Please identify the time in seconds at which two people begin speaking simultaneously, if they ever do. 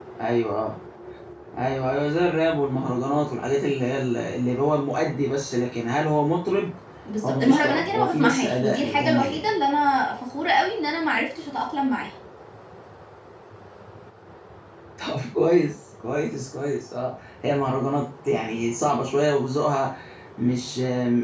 7.2 s

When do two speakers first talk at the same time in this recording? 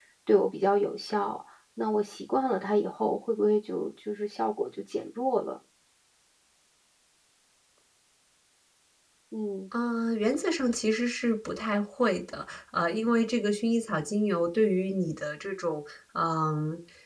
none

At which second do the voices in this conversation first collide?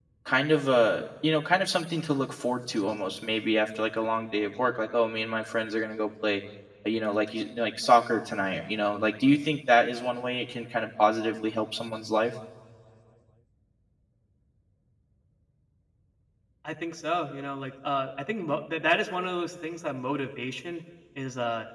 none

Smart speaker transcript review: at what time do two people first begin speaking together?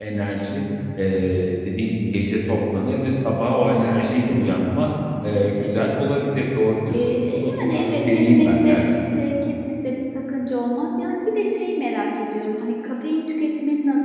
6.9 s

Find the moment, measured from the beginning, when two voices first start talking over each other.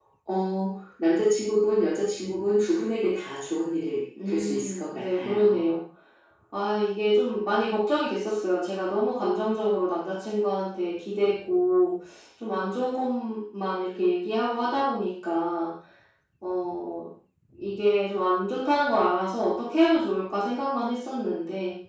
4.2 s

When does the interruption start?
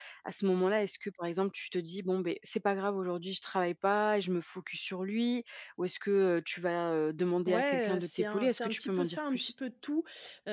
7.5 s

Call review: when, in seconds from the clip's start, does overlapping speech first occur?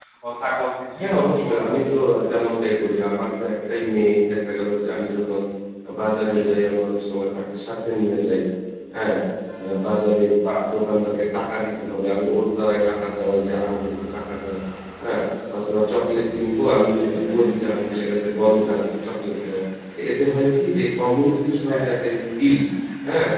1.0 s

